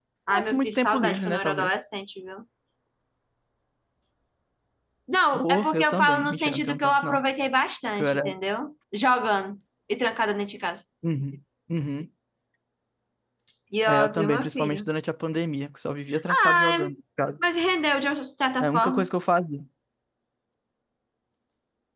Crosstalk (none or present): present